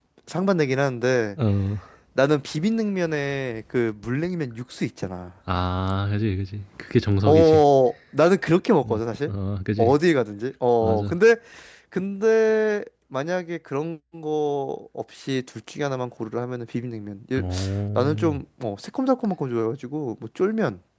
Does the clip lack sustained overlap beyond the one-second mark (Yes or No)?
Yes